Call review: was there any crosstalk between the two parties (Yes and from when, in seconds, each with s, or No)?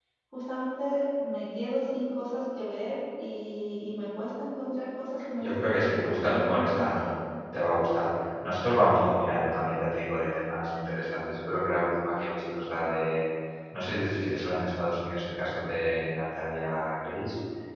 Yes, from 5.4 s